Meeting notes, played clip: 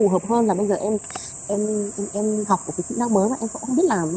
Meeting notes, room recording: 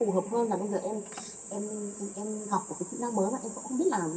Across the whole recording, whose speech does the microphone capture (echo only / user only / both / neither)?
echo only